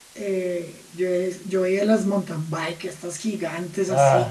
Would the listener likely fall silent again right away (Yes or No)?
Yes